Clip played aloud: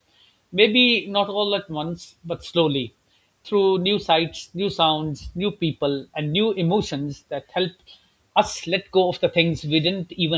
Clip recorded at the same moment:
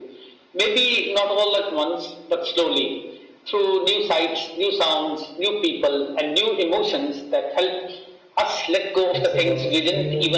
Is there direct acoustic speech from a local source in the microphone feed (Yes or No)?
Yes